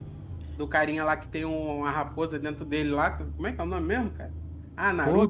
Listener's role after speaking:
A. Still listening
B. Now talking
B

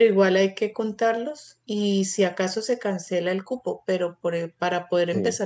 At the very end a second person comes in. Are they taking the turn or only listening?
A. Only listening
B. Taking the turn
A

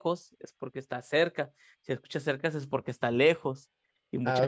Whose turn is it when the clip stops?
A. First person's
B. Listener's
B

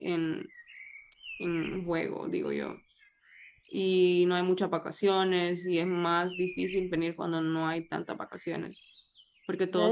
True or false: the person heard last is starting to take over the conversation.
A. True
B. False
A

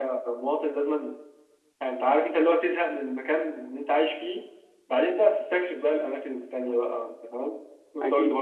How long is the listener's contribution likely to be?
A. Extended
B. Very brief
A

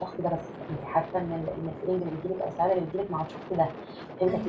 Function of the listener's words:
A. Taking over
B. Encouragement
B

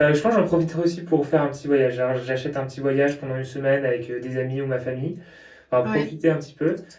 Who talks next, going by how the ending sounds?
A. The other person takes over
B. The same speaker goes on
B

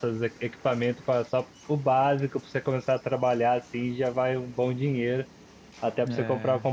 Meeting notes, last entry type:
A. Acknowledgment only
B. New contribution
A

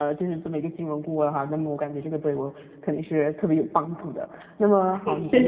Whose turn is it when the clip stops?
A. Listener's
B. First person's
B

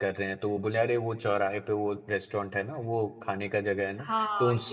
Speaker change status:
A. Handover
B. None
A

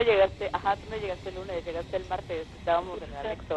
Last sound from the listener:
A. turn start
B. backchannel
A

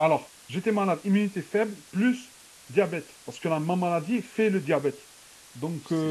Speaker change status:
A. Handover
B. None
B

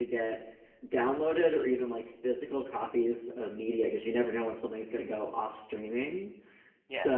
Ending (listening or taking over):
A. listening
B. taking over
A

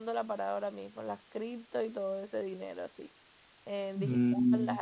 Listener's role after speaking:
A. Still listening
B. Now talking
A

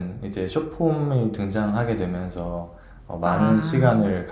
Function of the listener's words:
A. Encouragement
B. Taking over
A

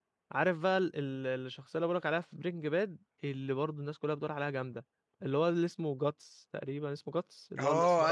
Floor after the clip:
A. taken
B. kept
A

